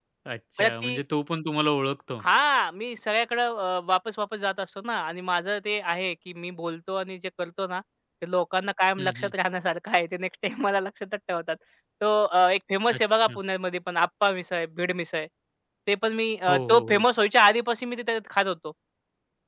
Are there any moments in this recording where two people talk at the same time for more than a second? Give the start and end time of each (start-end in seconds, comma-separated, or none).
none